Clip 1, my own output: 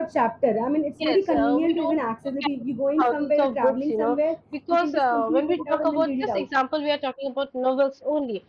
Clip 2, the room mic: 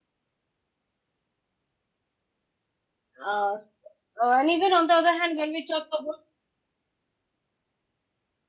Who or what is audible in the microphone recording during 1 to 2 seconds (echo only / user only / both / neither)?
neither